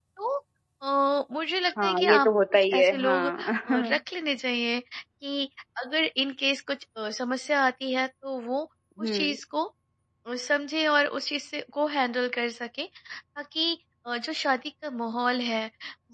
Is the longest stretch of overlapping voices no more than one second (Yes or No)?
No